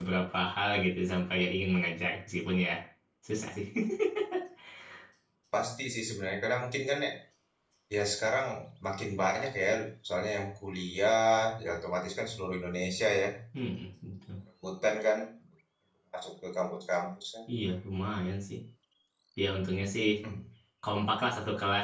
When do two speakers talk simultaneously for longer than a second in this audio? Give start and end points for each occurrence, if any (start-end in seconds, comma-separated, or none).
none